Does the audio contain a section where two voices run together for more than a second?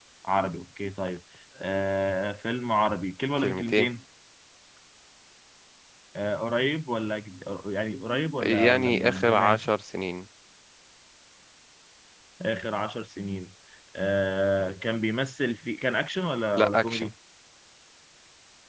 Yes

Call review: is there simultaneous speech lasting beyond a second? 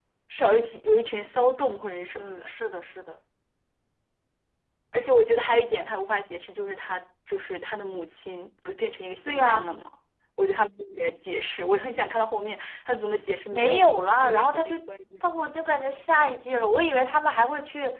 Yes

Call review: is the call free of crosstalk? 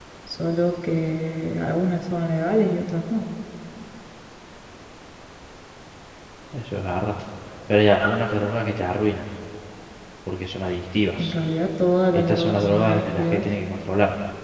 No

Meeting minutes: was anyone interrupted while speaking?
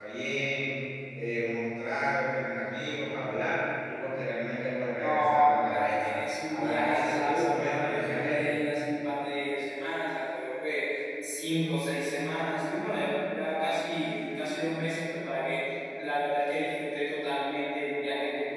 Yes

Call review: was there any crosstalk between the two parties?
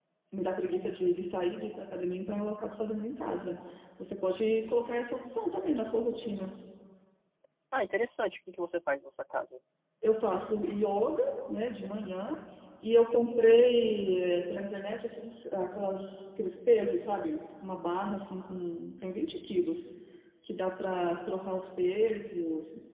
No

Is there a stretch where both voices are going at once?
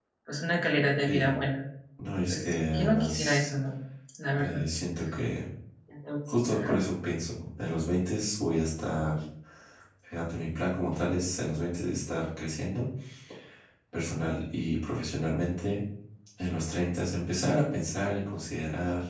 Yes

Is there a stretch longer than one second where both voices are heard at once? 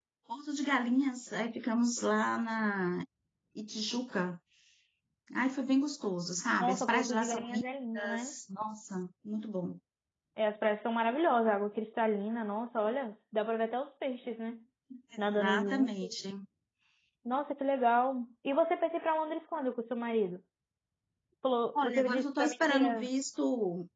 Yes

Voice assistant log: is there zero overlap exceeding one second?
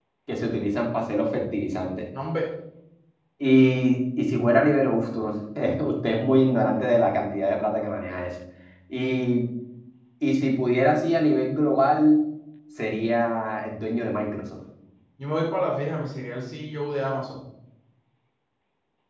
Yes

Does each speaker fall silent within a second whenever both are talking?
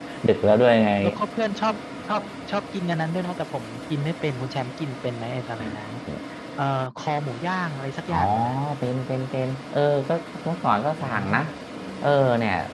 Yes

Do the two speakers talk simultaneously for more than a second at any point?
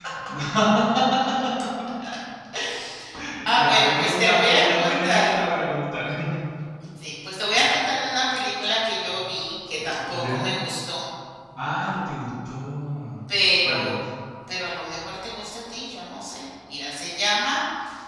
Yes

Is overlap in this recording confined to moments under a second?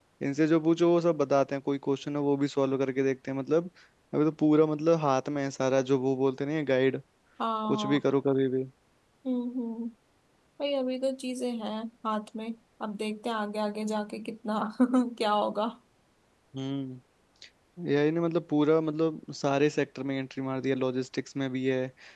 Yes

